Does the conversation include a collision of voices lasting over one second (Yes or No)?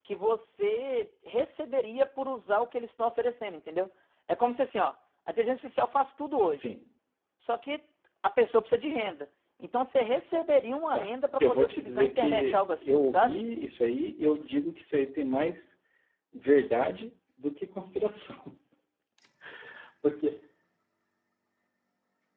Yes